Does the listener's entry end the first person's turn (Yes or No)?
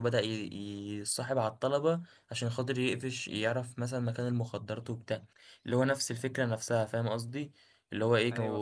No